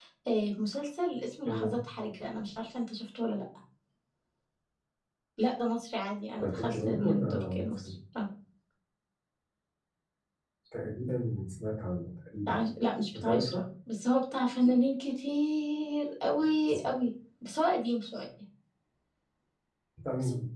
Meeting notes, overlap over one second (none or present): present